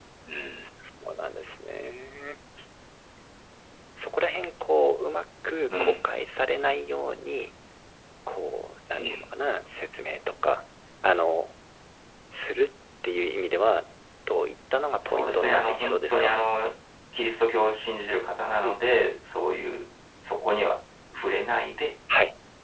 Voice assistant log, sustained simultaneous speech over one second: present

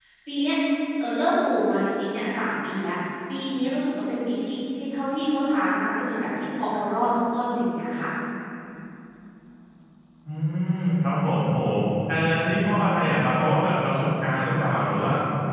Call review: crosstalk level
none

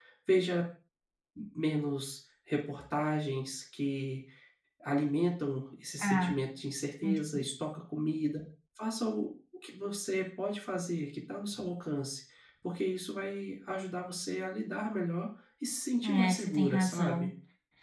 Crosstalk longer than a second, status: present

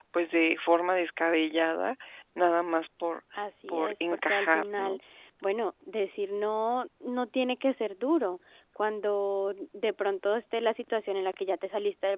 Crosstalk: present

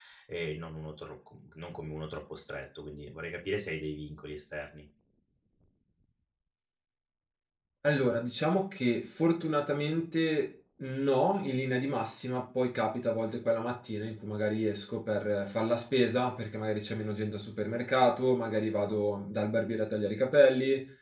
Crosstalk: none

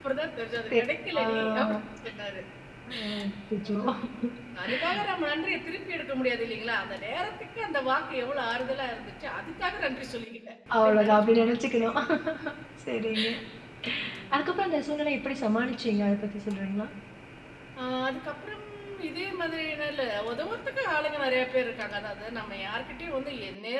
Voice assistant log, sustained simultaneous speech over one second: present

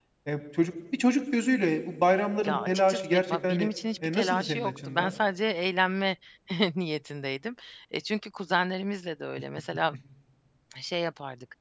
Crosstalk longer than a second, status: present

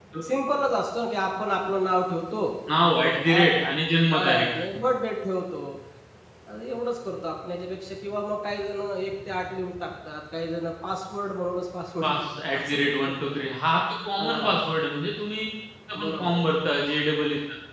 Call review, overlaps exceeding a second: present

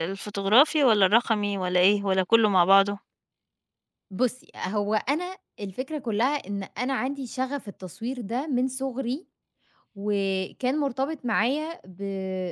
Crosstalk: none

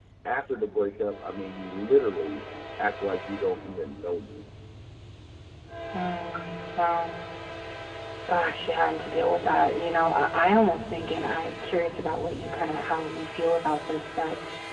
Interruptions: none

